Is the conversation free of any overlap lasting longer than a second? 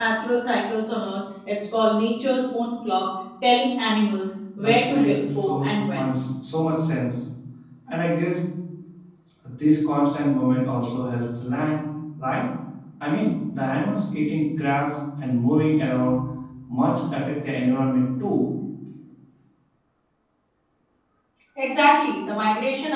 No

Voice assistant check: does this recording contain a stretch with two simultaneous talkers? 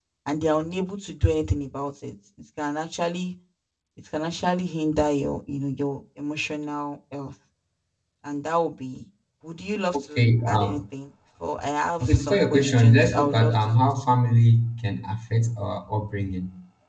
Yes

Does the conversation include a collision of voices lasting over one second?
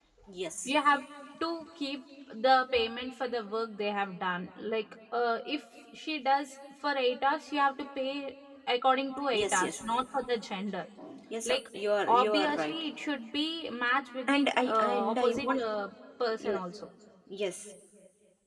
Yes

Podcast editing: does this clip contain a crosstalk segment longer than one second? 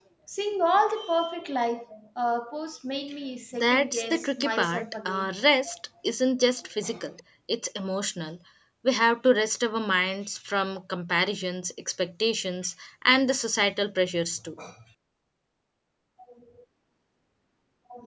Yes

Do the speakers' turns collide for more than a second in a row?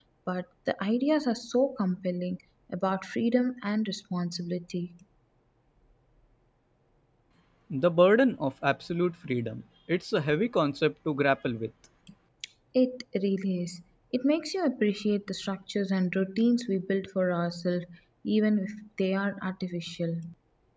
No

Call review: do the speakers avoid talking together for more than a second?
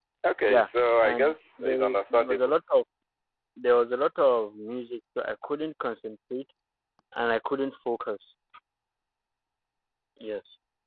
No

